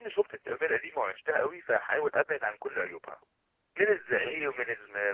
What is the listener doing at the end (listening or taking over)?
listening